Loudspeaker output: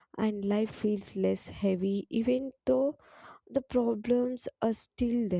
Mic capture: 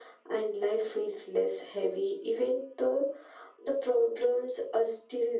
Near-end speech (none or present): none